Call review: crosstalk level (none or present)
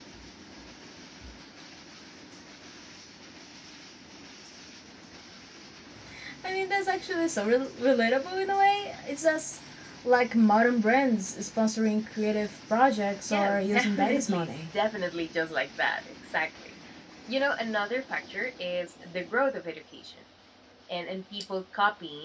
present